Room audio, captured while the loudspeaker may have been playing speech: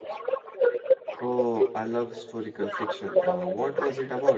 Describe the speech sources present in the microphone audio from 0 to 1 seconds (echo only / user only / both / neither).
echo only